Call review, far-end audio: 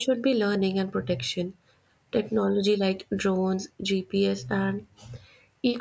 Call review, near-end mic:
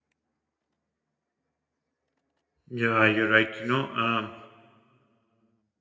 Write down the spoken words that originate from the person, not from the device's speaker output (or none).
Yeah, you're right. You know, um,